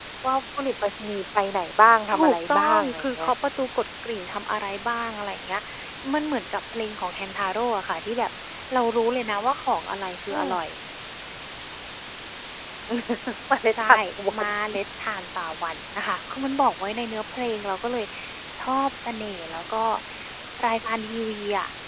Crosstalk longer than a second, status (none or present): present